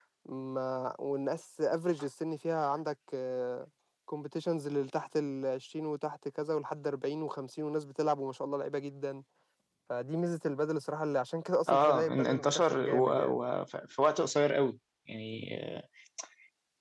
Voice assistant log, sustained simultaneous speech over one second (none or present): present